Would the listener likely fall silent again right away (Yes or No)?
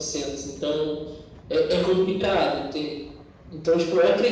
Yes